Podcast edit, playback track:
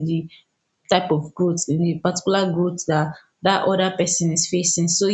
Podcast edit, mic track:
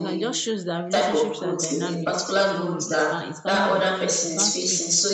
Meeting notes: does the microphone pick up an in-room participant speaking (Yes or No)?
Yes